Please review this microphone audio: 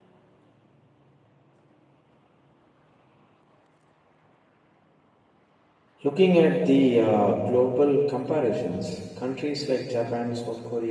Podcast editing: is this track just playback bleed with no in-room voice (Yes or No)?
No